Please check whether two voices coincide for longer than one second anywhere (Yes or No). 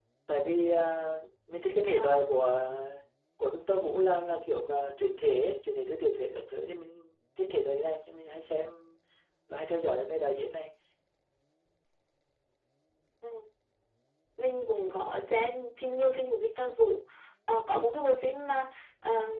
No